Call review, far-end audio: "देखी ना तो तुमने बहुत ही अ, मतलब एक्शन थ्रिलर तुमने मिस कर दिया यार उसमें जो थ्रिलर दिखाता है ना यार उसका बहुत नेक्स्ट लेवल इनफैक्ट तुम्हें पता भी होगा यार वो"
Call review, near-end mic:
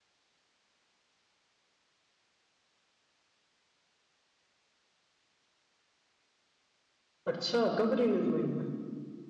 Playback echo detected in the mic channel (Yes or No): No